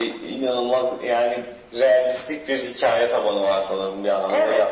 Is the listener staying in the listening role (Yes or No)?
No